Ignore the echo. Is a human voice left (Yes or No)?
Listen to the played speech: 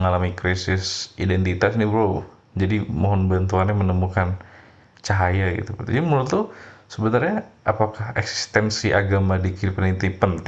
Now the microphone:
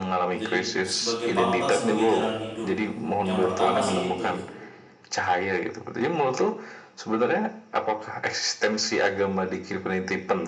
Yes